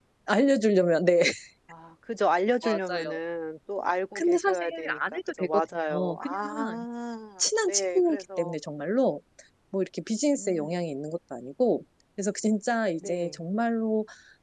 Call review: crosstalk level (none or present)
present